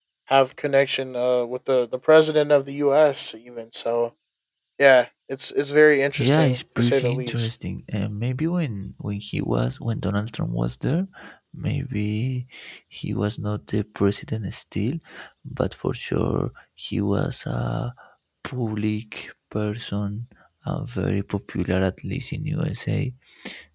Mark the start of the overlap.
6.1 s

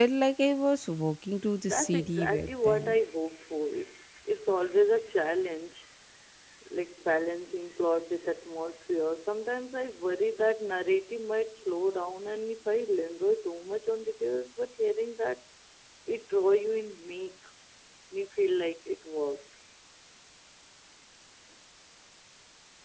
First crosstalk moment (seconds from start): 1.6 s

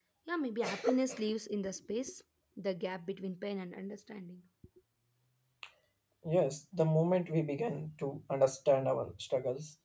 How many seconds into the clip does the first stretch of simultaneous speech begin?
none

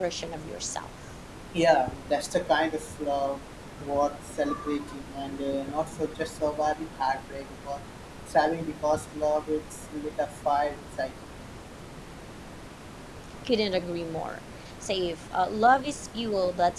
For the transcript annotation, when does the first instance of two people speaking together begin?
none

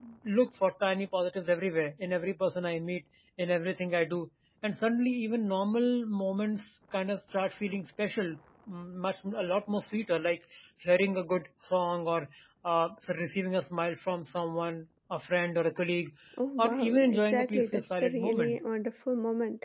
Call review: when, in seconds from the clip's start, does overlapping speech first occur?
16.6 s

